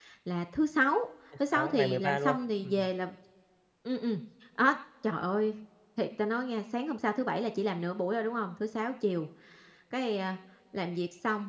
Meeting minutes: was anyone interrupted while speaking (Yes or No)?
Yes